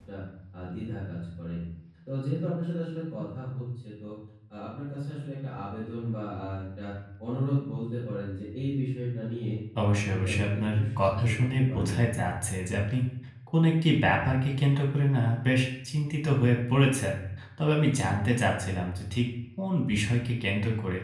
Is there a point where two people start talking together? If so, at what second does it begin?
10 s

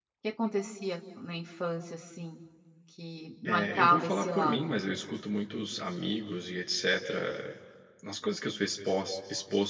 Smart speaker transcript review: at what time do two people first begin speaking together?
3 s

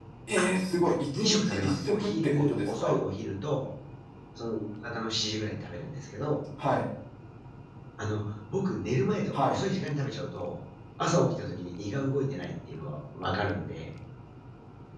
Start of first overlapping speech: 1 s

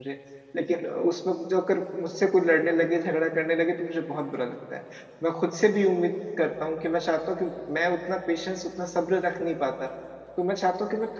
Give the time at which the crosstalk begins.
none

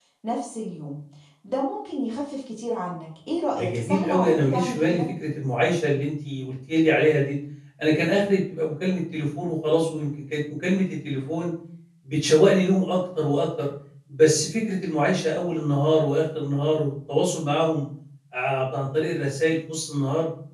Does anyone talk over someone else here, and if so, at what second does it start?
4 s

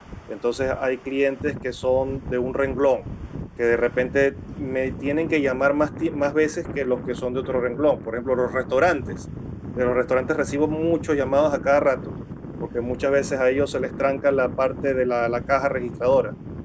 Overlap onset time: none

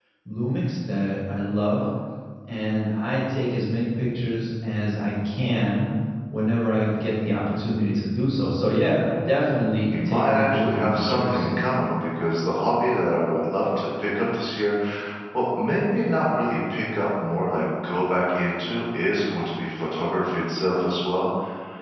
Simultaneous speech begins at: 10 s

